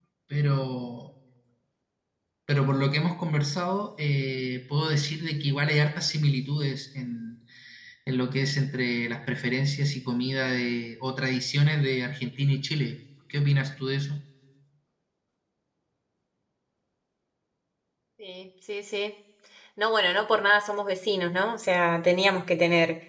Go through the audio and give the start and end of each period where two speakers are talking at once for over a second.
none

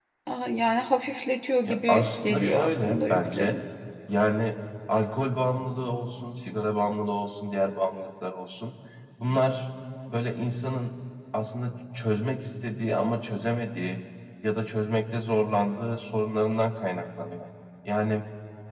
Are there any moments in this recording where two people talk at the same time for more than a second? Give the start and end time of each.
1.6-3.6

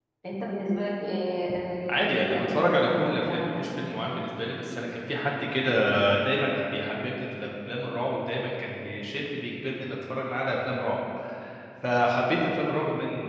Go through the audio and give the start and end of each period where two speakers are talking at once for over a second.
1.9-3.6

